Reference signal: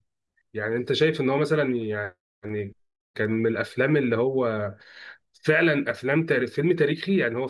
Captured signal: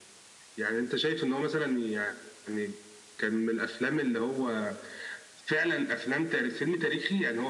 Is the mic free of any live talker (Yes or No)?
Yes